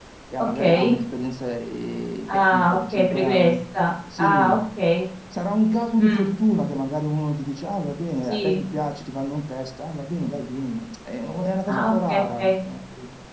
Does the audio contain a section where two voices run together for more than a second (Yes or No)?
Yes